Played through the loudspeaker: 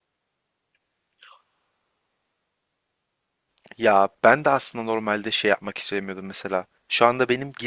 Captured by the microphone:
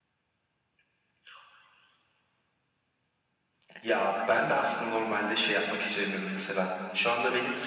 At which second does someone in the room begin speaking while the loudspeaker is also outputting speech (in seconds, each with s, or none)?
none